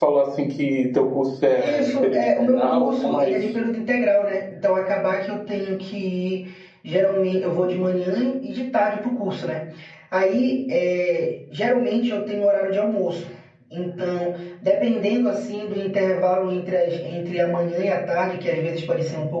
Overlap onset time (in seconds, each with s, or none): 1.6 s